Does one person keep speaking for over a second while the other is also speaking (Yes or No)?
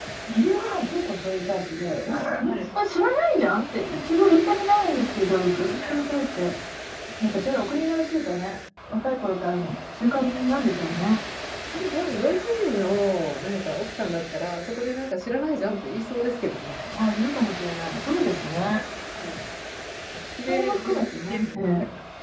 Yes